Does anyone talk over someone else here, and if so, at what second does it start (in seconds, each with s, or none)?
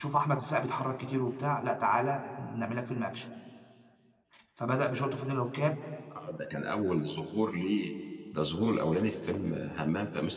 none